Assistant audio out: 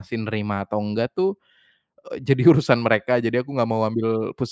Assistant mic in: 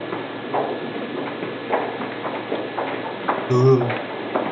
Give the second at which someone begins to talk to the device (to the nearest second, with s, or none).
3 s